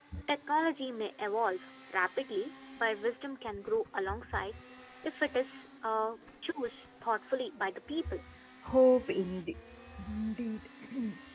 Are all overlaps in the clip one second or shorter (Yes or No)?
Yes